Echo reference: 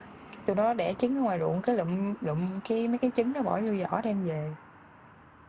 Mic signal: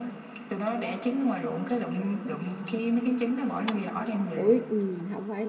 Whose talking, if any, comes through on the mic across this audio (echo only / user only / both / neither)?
both